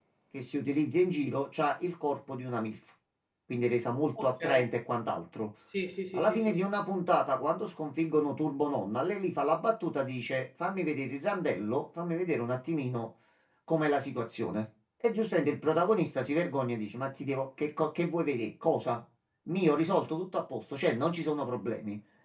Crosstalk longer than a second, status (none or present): none